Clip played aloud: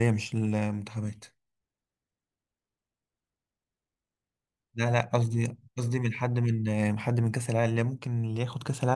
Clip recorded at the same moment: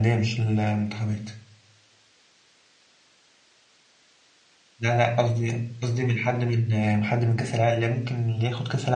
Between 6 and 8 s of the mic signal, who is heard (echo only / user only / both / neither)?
echo only